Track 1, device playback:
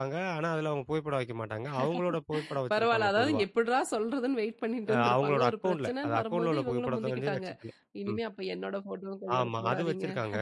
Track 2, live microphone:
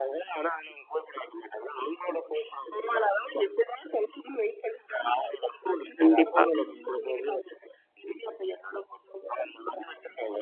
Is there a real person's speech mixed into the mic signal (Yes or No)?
Yes